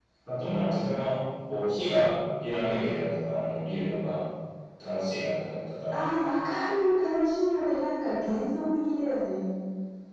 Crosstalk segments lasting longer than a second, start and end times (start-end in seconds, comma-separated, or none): none